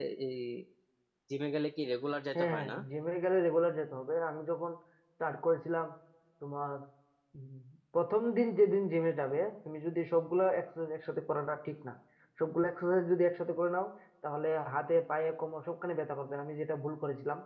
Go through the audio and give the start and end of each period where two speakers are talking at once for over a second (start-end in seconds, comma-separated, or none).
none